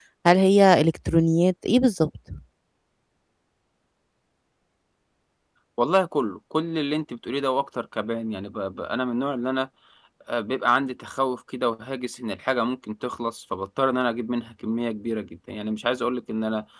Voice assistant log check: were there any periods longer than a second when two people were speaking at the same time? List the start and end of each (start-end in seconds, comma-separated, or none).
none